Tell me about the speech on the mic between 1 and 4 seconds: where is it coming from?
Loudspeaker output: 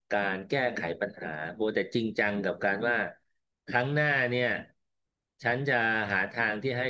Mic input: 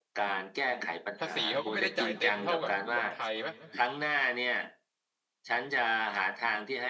both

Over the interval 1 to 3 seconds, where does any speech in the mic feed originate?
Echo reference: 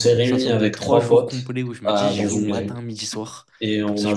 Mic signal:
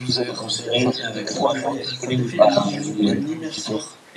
both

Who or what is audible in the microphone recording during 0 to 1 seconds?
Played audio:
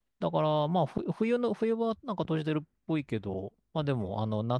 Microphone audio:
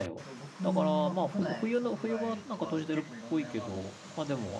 both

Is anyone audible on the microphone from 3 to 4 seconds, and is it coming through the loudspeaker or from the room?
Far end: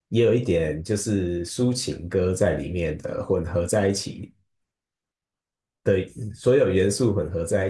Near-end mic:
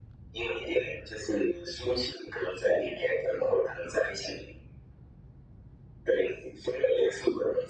echo only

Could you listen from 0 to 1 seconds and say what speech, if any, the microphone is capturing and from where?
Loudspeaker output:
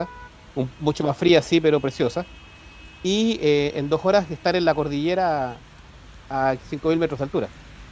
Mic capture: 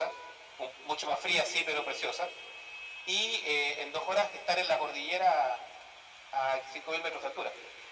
echo only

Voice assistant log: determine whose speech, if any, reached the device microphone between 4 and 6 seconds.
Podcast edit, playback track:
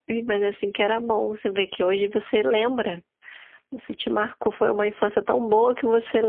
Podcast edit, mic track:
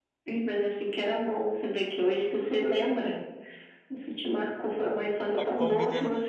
both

